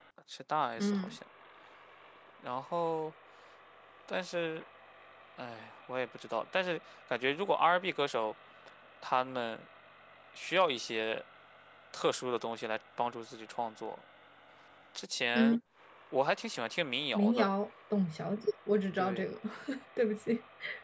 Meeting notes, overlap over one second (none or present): none